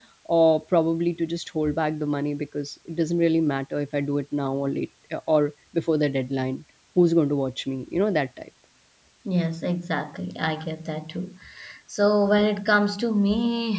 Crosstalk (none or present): none